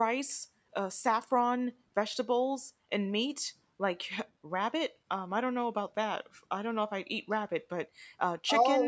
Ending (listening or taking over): taking over